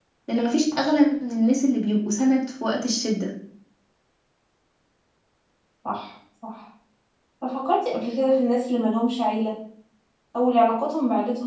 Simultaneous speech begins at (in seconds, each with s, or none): none